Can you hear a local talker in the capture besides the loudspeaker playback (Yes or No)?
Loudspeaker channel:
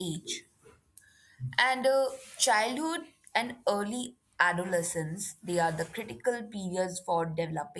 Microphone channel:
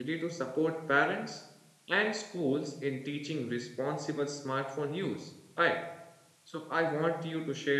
Yes